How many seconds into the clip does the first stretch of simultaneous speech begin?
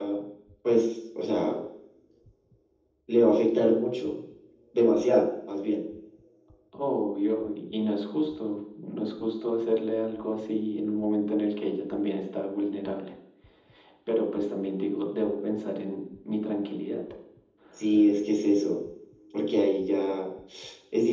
none

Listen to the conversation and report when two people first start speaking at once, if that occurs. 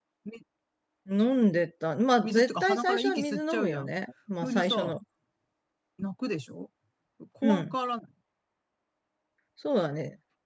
2.2 s

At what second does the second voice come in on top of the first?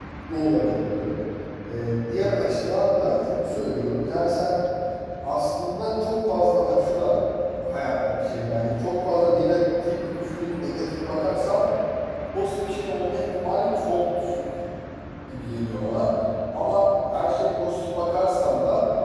none

